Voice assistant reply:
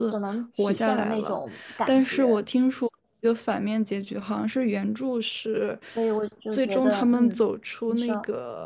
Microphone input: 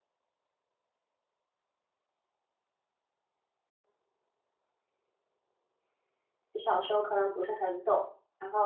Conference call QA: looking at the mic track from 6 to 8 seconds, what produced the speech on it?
user only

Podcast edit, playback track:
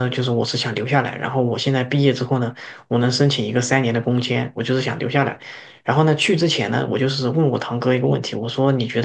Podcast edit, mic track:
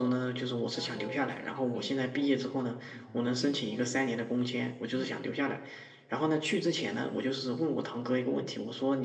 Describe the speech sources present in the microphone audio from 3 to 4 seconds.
both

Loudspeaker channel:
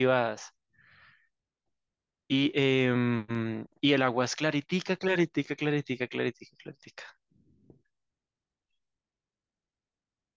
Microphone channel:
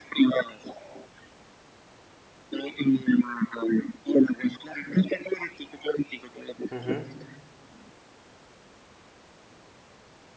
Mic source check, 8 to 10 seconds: neither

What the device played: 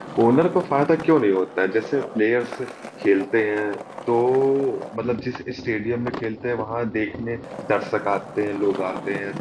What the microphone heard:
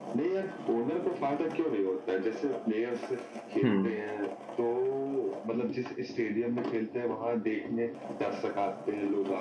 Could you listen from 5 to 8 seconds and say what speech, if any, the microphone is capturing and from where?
echo only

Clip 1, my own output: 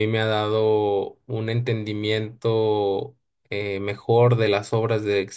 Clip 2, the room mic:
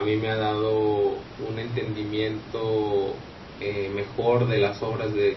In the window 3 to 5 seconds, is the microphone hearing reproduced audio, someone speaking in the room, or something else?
echo only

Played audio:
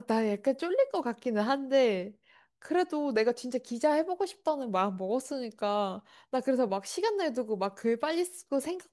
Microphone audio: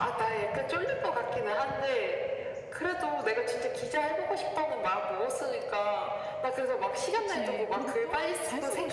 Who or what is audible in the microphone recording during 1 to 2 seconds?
echo only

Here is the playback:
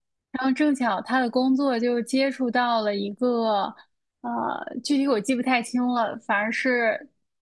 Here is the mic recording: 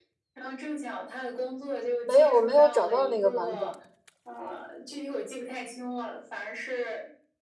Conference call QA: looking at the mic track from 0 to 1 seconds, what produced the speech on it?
echo only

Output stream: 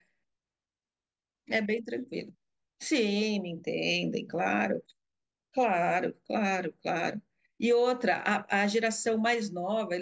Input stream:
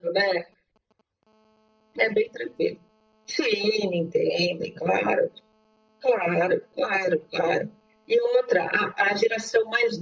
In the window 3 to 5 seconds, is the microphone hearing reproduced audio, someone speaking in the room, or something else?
echo only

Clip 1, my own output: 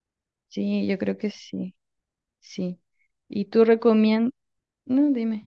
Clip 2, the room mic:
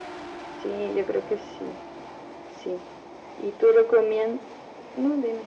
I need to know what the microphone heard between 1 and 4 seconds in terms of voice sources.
echo only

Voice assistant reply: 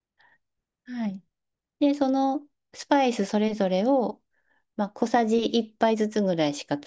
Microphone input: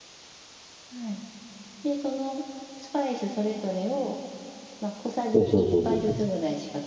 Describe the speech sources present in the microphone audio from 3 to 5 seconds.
echo only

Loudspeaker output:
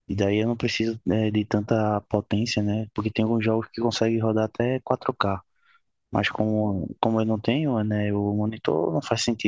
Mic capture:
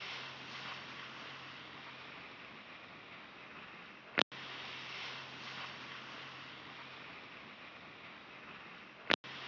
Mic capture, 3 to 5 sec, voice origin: neither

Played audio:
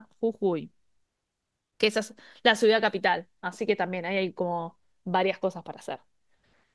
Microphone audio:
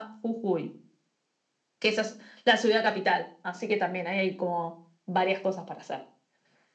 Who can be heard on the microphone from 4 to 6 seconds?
echo only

